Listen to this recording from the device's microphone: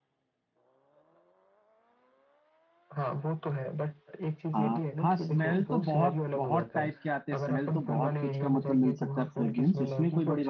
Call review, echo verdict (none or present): present